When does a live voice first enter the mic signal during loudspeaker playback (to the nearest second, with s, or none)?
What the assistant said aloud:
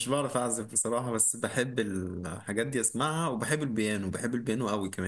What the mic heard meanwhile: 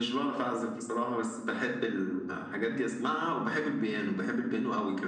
none